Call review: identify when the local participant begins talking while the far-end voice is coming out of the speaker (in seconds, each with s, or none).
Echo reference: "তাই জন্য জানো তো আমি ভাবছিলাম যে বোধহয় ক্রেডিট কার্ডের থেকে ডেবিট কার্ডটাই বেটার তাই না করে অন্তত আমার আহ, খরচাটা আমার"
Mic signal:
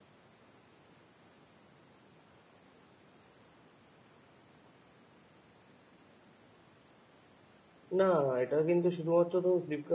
8.0 s